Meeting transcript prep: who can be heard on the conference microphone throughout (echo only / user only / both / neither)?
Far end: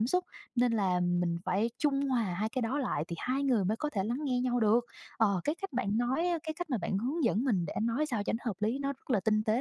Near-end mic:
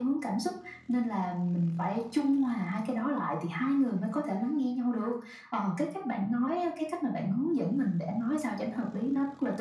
echo only